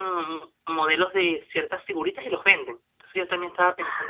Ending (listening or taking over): listening